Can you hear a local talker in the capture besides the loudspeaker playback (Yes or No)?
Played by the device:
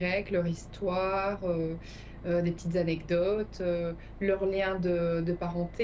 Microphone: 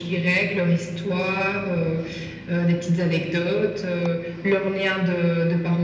No